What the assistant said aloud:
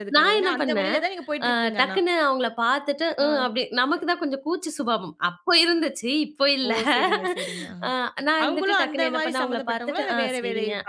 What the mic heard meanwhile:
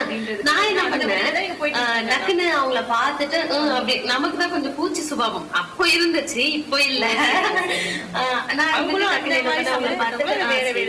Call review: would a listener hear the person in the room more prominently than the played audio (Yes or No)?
No